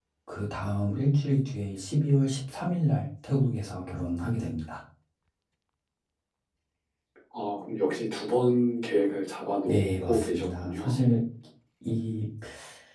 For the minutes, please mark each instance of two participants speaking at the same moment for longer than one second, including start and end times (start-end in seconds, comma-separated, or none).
9.7-11.0